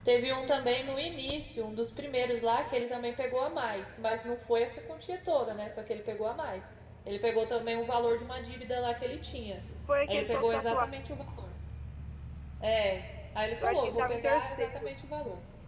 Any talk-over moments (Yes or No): Yes